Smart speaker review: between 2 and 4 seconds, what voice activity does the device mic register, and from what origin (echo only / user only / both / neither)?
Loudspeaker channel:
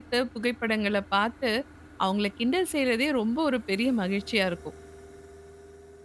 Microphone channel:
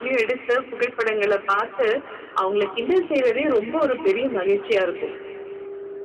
echo only